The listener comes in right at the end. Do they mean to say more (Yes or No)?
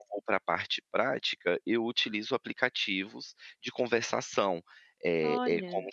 No